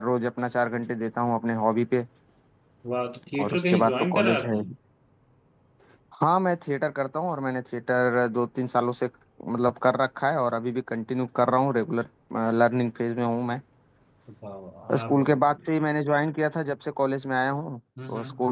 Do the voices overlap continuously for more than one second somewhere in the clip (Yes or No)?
Yes